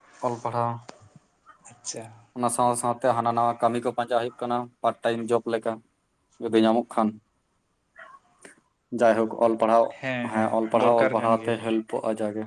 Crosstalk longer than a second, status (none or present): present